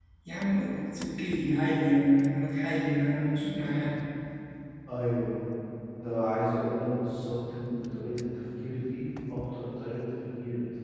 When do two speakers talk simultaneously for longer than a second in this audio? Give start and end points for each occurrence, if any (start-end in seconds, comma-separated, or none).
none